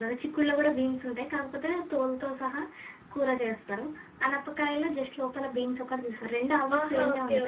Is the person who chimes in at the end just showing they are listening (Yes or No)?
No